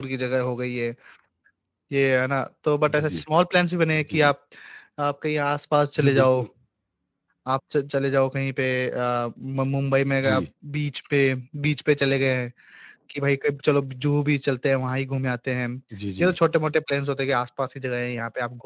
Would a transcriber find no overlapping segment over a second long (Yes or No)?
Yes